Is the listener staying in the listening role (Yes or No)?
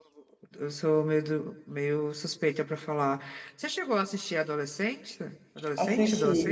No